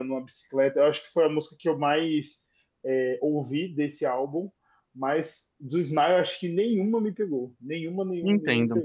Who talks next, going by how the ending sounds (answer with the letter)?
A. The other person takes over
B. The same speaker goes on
A